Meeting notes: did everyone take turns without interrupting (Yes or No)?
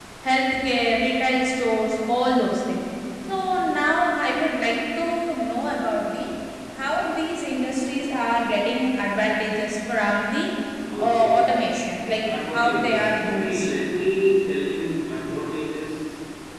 No